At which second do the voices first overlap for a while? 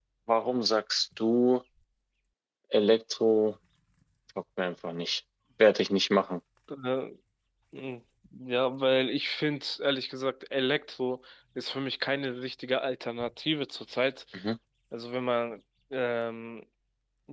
none

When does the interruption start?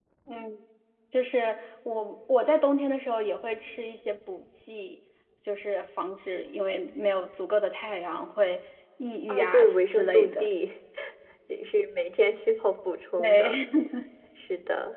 9.3 s

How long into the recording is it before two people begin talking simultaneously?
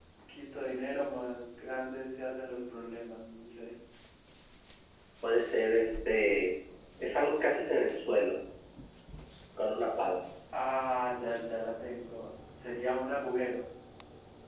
none

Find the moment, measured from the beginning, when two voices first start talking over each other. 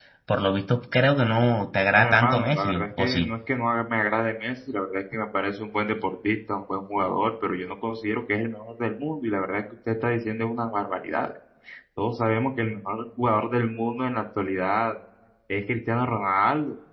1.9 s

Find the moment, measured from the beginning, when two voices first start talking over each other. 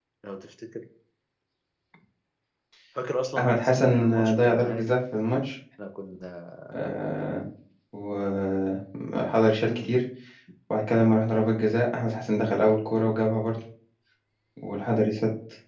3.4 s

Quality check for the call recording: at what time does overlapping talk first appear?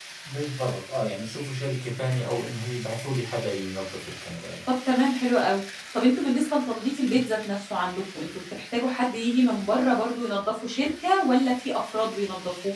none

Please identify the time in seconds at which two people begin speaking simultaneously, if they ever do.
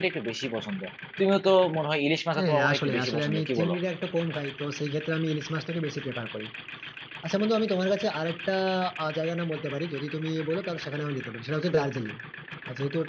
2.4 s

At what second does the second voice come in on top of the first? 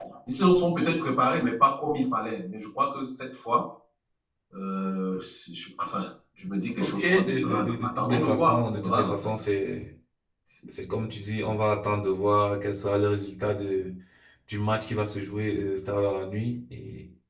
6.8 s

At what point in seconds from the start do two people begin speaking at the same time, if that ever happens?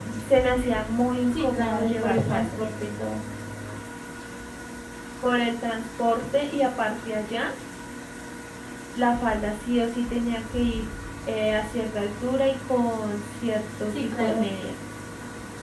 1.3 s

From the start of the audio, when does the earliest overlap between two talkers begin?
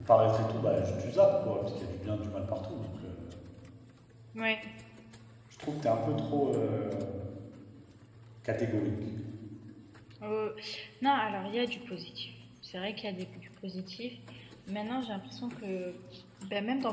none

